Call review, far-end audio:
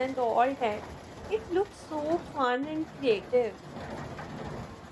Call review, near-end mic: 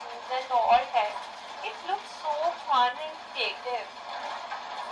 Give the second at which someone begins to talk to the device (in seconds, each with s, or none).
none